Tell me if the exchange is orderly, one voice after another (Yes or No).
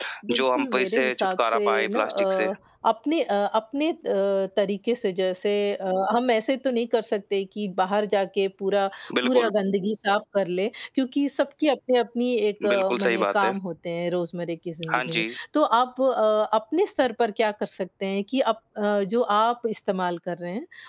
No